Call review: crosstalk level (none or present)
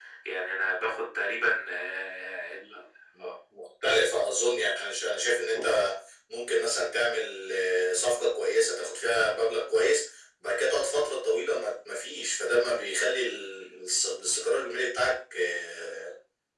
none